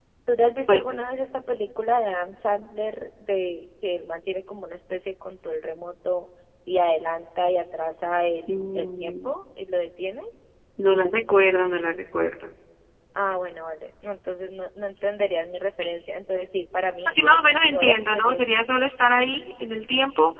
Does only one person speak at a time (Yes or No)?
No